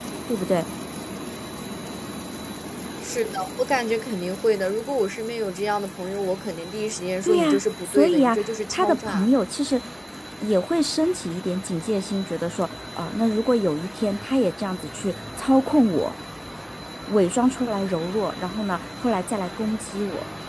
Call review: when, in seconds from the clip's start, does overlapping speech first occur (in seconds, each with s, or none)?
7.2 s